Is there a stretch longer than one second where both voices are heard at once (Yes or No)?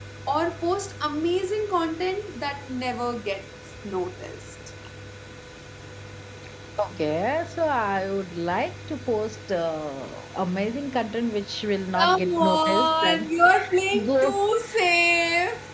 Yes